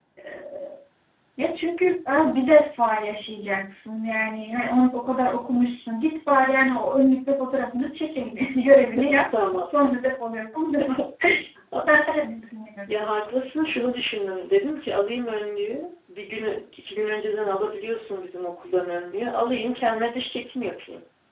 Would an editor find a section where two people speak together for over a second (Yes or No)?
No